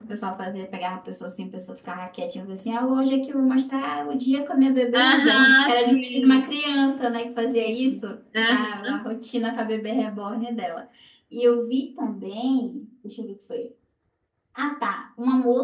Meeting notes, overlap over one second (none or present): present